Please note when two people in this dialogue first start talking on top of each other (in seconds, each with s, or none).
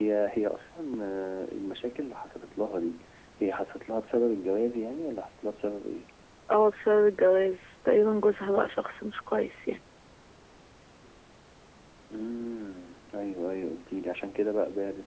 none